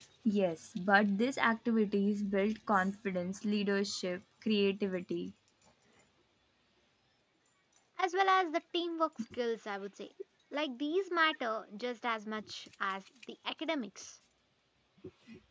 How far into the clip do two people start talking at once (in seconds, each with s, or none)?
none